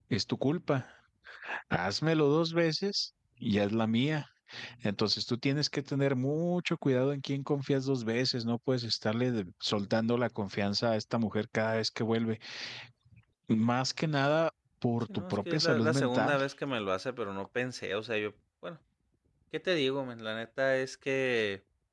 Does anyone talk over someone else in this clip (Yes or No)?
Yes